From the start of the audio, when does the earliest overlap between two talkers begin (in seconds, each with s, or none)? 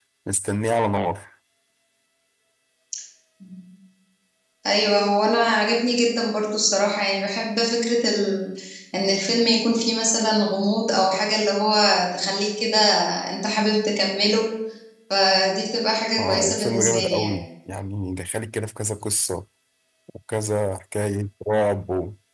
16.2 s